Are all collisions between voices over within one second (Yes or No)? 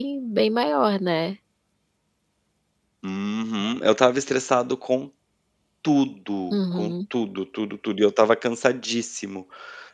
Yes